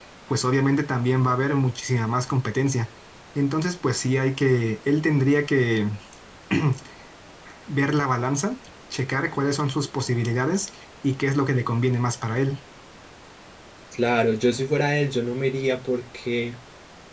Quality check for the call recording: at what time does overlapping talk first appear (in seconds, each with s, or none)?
none